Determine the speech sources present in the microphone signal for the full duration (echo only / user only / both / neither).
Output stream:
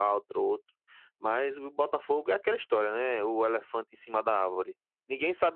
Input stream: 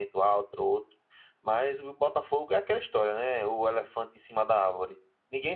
echo only